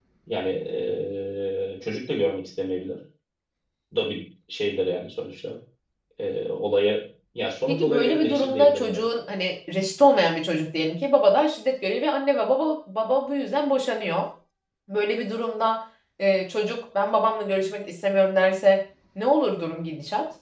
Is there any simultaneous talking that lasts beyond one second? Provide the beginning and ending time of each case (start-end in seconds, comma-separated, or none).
7.7-9.1